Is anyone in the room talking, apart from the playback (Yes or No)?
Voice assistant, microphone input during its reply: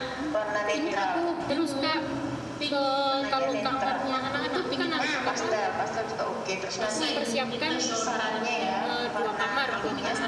Yes